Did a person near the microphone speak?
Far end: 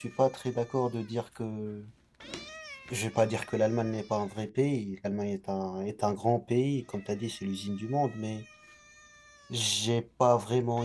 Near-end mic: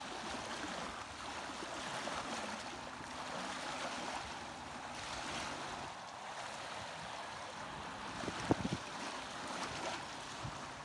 No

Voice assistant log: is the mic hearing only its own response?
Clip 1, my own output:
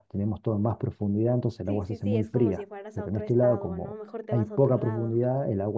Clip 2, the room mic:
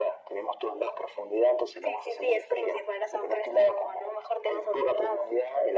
Yes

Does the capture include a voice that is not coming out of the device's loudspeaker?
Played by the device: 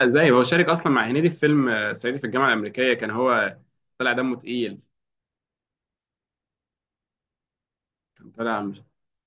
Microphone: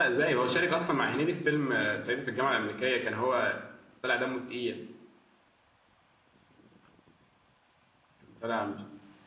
No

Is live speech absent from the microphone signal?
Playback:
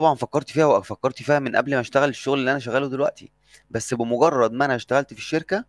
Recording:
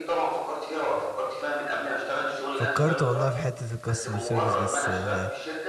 No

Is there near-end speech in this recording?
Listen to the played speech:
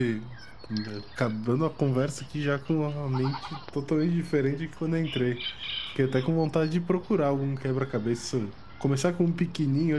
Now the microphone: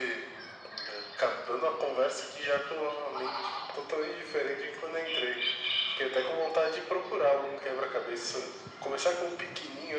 No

